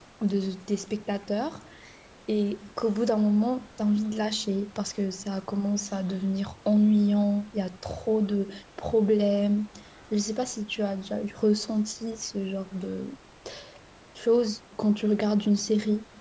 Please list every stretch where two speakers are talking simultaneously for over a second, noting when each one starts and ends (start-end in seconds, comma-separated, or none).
none